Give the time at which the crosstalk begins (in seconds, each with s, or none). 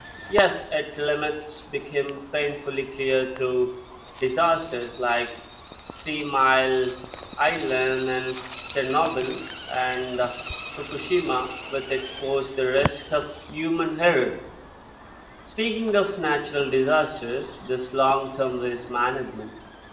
none